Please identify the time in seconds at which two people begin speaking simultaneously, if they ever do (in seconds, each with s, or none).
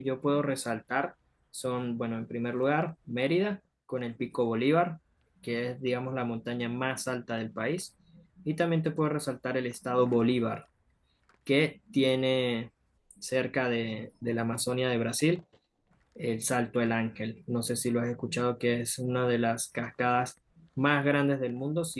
none